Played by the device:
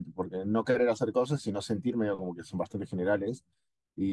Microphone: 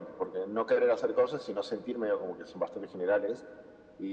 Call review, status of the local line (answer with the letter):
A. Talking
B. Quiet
B